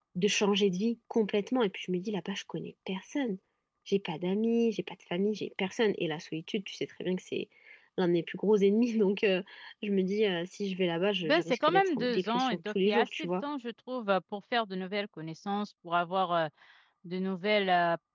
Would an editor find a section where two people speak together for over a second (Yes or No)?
Yes